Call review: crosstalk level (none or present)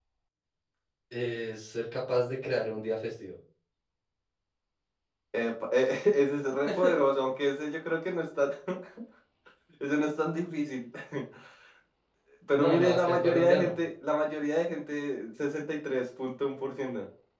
present